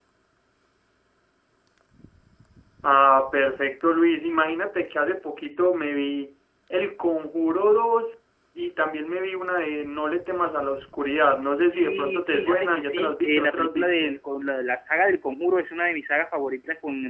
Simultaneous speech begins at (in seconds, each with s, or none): 11.7 s